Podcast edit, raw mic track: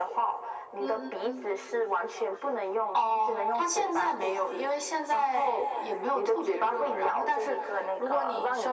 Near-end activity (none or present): none